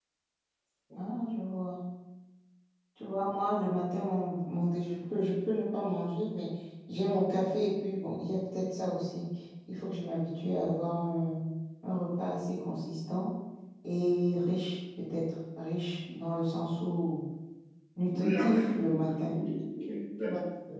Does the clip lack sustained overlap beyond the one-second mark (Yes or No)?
No